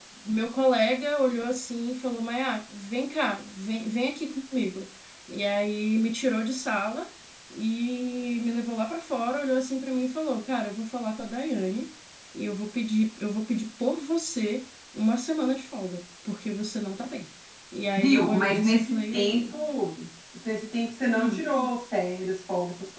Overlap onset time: 18 s

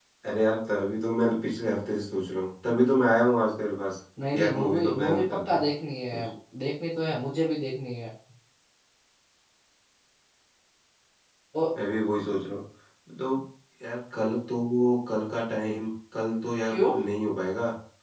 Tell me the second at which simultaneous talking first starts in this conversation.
4 s

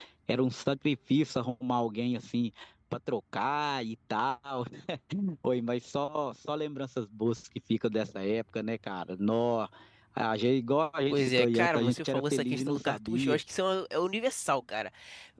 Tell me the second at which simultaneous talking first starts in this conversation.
11 s

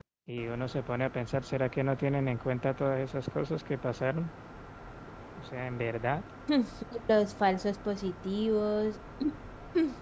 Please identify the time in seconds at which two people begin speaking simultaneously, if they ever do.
none

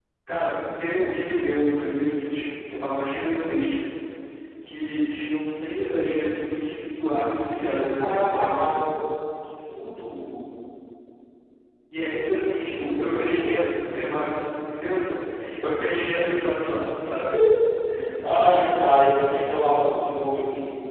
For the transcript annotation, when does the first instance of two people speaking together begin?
7 s

